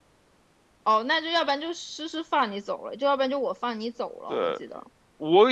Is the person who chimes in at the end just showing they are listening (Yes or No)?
No